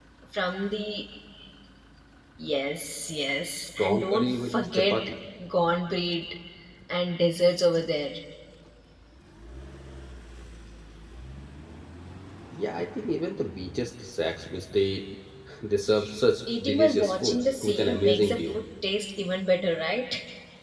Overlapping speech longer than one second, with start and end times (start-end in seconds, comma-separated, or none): 3.8-5.1, 16.6-18.6